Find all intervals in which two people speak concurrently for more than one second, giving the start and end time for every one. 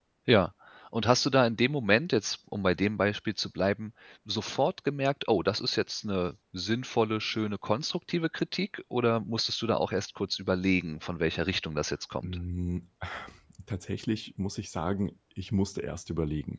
none

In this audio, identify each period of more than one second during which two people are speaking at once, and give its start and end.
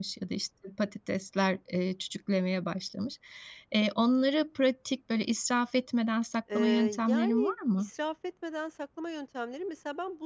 6.5-7.9

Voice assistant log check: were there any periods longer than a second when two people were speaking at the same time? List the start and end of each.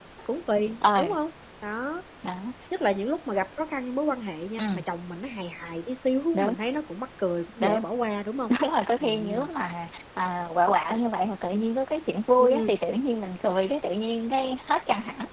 none

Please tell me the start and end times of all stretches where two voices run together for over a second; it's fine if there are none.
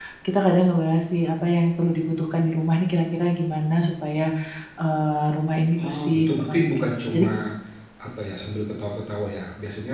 5.8-7.3

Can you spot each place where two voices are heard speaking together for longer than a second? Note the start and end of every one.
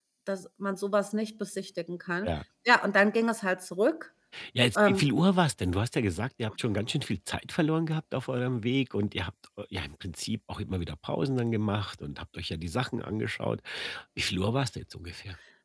none

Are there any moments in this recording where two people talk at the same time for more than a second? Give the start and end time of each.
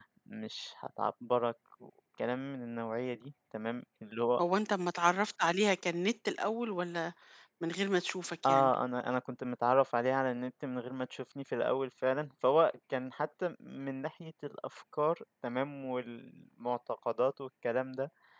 none

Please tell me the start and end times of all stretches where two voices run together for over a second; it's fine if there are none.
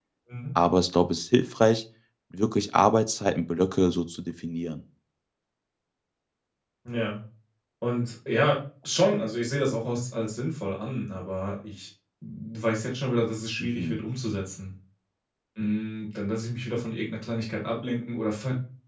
none

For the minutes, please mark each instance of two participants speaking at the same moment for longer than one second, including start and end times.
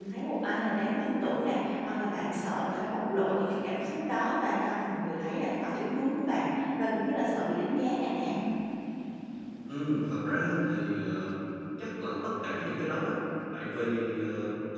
none

